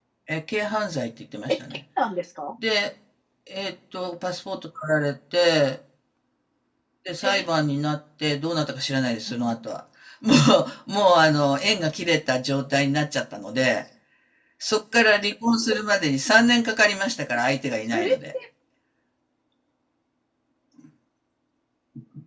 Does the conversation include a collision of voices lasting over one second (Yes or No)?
No